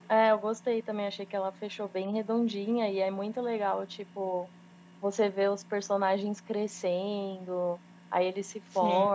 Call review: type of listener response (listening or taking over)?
listening